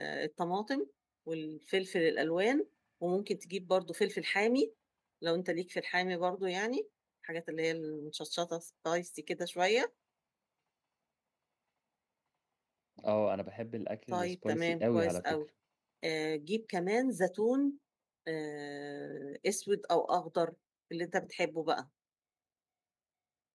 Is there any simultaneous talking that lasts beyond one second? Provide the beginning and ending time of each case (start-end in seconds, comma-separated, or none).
14.1-15.4